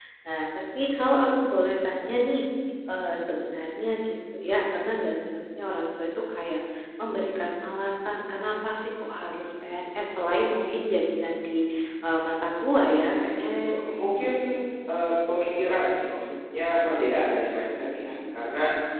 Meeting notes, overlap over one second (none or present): none